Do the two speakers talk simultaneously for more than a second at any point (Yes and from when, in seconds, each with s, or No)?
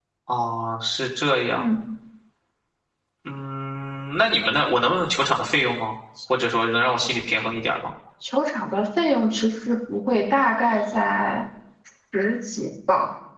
No